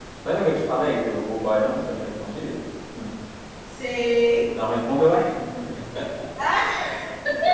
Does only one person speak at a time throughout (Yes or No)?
Yes